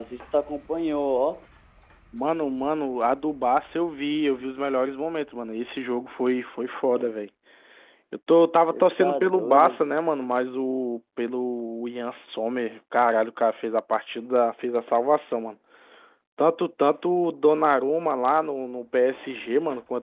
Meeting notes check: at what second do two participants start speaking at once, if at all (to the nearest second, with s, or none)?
9 s